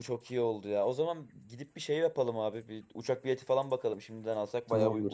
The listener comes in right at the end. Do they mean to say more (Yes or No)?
Yes